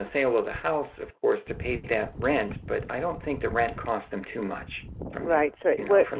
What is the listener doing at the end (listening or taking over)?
taking over